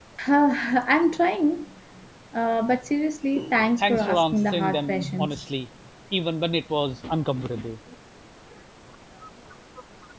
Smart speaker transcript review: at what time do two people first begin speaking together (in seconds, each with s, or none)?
3.8 s